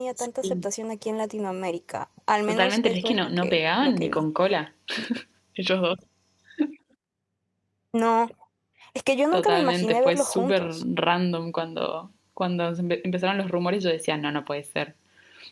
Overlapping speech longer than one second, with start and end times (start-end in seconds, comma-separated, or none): 2.5-4.2, 9.3-10.8